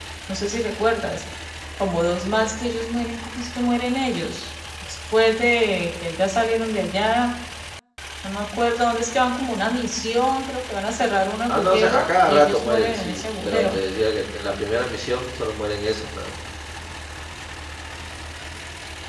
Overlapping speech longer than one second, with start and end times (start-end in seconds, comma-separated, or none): 11.5-13.8